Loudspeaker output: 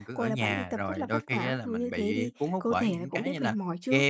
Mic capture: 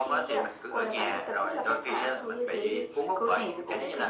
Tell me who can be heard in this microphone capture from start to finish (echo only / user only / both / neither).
echo only